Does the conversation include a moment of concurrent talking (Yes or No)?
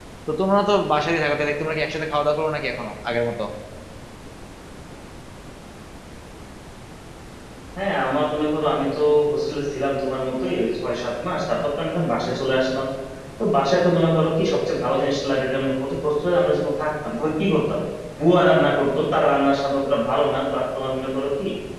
No